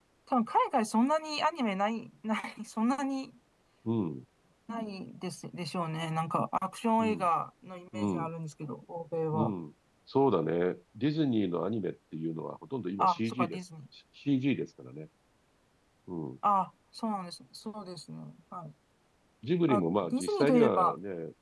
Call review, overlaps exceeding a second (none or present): present